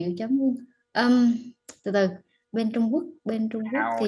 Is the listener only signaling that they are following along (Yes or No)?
No